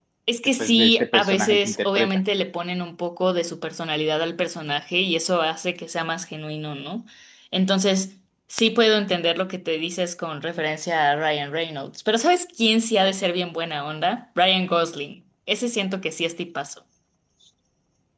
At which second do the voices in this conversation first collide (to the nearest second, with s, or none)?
1 s